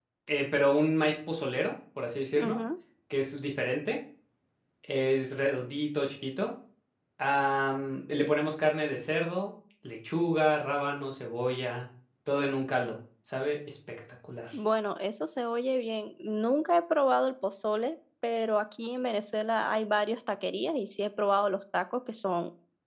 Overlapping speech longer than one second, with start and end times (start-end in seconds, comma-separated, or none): none